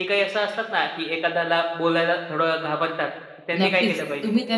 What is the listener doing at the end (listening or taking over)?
taking over